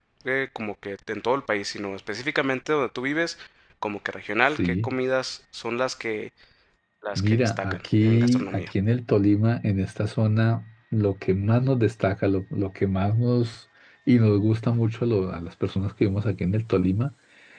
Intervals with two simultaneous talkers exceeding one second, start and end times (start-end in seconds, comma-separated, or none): 7.2-8.7